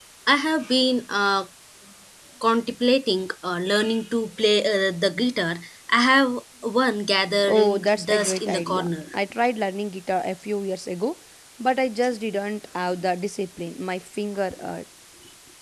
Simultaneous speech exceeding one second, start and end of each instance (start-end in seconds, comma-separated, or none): 7.4-8.9